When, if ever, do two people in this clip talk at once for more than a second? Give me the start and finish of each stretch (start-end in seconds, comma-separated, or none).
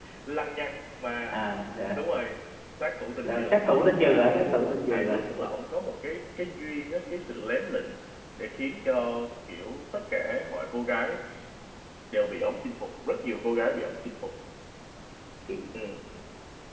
4.0-5.2